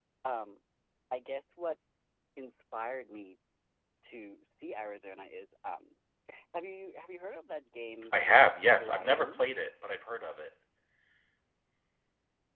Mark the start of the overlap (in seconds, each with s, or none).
8.0 s